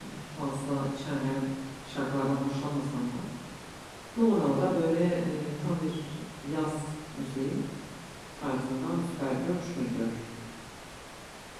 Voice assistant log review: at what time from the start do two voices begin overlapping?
none

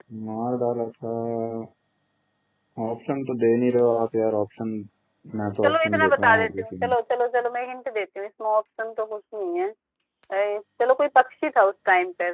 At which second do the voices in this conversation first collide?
5.6 s

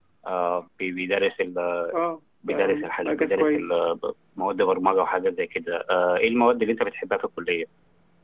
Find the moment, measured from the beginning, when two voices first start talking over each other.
2.5 s

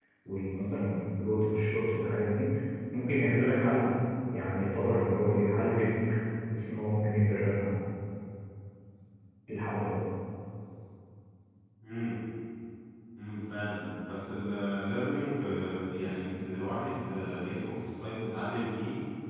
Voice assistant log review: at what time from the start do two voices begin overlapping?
none

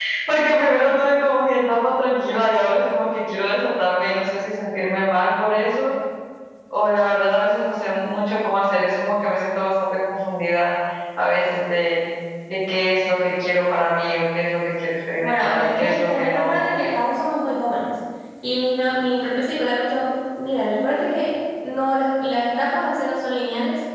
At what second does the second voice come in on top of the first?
15.2 s

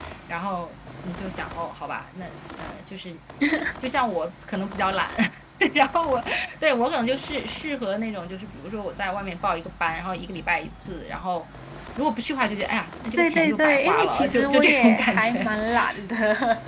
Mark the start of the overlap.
13.2 s

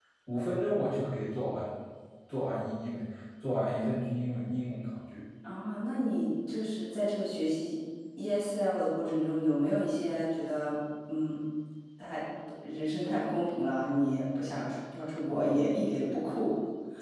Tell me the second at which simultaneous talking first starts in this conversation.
none

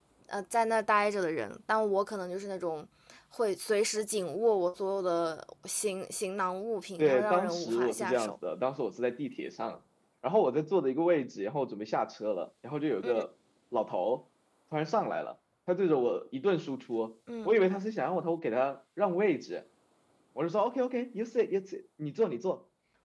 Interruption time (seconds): 7.0 s

